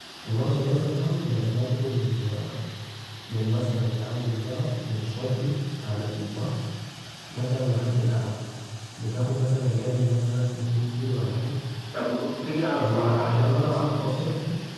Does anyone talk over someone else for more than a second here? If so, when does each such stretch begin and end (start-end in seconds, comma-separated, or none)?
12.7-14.3